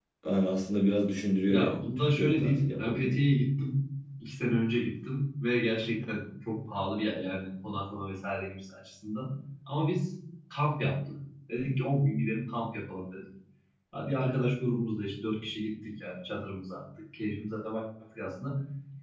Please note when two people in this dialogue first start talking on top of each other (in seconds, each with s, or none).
1.5 s